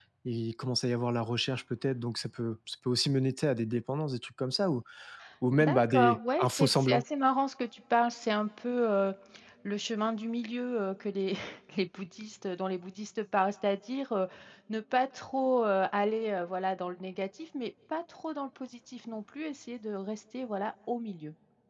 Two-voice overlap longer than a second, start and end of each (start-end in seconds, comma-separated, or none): 5.6-7.0